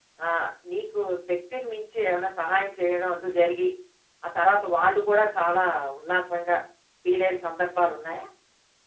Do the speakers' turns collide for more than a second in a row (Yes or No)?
No